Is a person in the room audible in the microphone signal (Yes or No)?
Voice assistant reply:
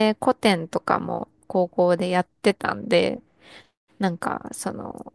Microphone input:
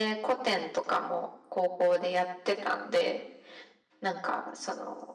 No